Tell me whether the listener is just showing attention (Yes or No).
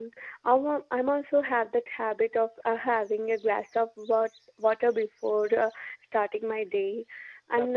Yes